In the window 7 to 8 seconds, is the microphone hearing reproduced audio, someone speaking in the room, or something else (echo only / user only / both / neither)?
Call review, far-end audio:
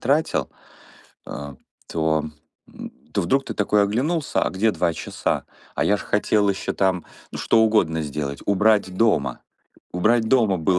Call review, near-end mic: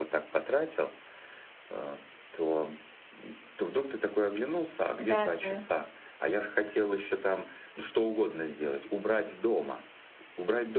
echo only